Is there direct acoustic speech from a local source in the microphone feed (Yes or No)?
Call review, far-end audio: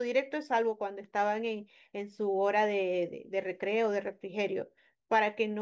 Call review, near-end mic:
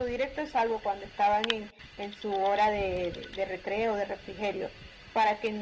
No